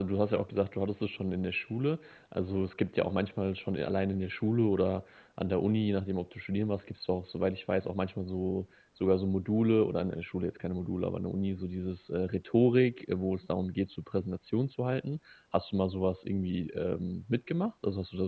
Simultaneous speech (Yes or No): No